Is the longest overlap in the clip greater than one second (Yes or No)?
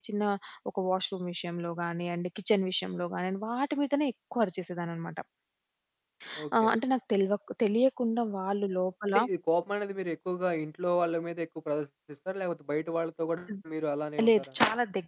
No